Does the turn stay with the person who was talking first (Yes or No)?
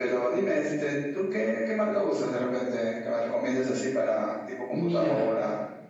No